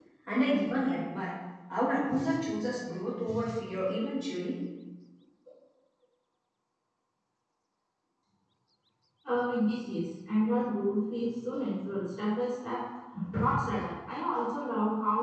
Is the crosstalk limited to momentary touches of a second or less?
Yes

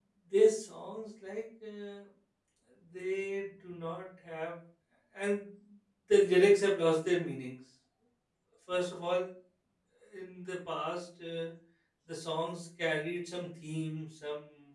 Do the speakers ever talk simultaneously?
No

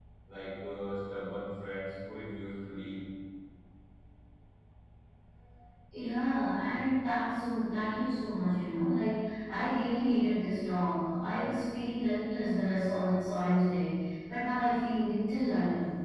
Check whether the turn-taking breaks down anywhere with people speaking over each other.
No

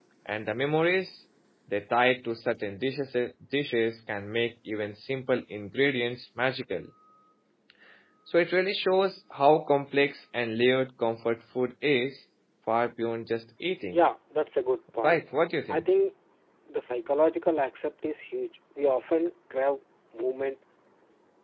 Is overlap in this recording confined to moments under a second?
Yes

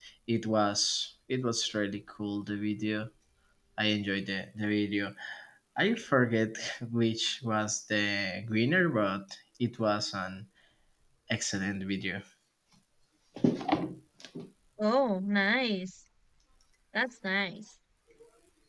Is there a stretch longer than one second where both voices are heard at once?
No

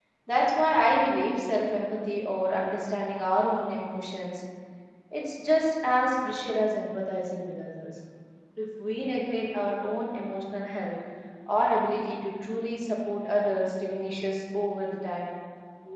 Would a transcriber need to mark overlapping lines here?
No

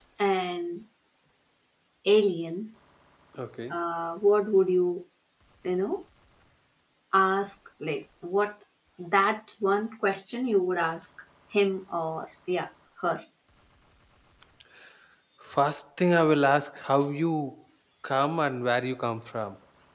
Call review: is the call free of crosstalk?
Yes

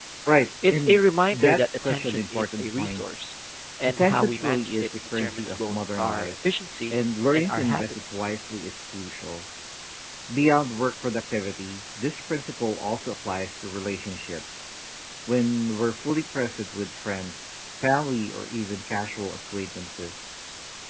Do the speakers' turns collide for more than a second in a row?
Yes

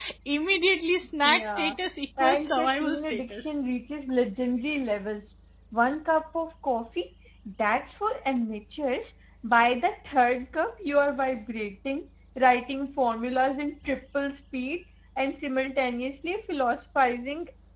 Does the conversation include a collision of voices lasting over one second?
Yes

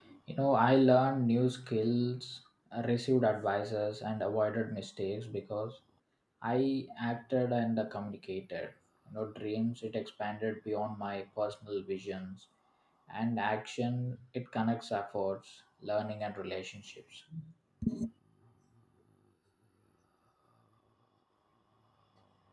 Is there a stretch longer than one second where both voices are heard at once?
No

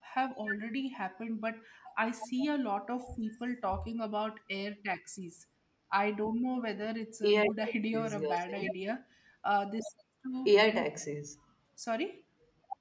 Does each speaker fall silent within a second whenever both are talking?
No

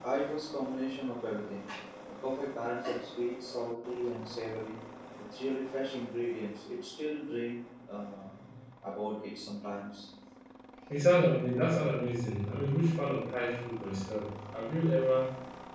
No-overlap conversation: Yes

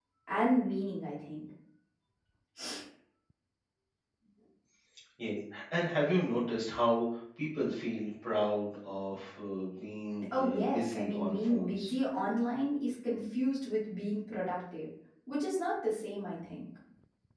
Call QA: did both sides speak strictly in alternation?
No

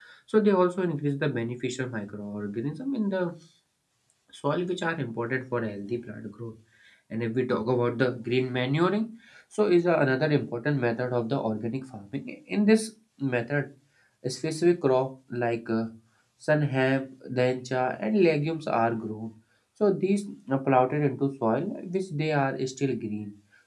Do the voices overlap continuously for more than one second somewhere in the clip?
No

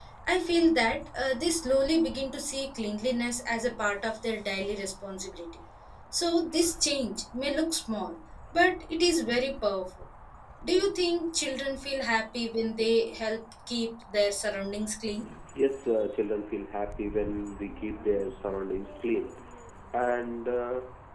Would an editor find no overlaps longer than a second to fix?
Yes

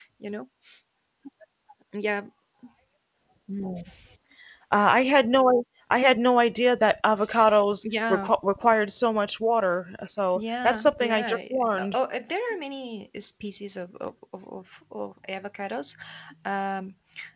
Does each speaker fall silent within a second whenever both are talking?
No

